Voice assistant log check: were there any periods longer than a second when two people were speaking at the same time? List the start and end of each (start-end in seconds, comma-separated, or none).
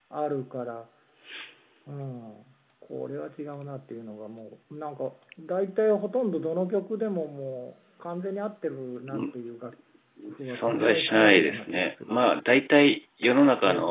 10.5-12.2